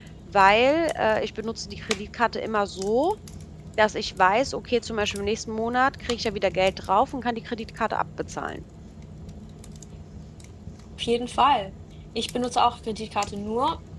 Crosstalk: none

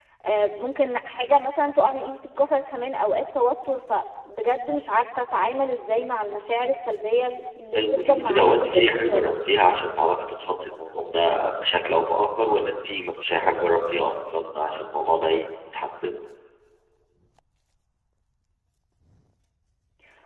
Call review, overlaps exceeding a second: present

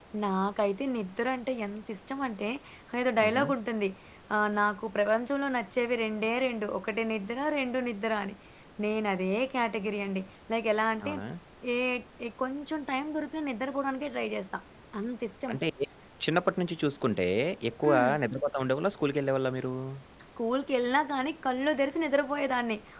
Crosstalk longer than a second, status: none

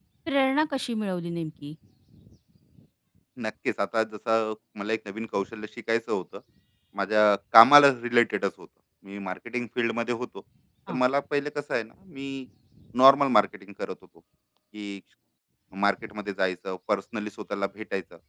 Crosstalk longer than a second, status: none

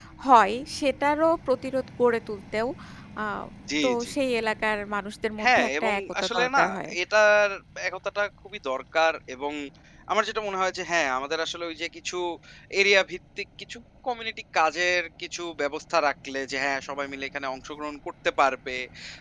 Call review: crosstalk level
present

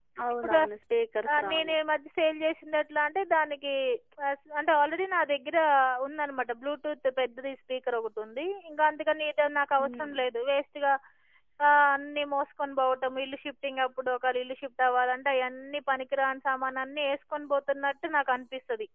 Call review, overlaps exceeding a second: none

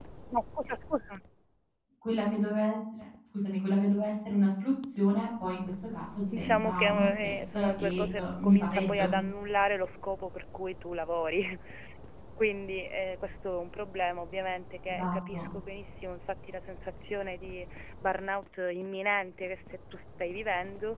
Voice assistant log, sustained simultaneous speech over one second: present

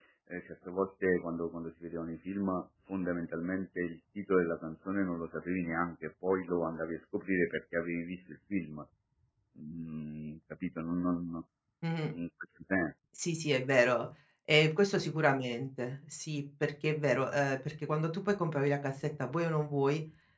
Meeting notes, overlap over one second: none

